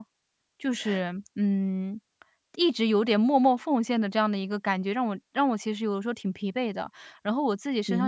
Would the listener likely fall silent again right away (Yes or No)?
Yes